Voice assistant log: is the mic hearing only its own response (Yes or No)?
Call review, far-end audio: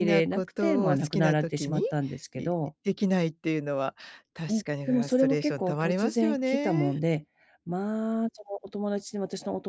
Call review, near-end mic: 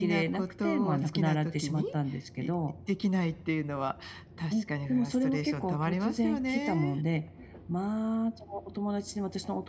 Yes